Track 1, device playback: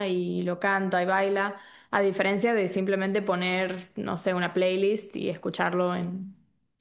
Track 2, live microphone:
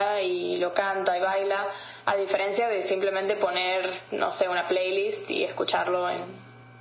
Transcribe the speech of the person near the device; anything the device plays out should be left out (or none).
none